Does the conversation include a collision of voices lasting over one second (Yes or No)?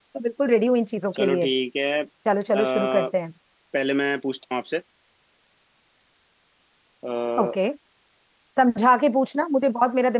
No